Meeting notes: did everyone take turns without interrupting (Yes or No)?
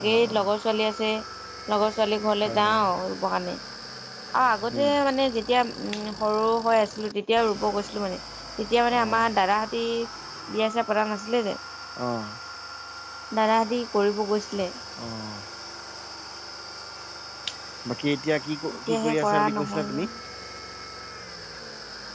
No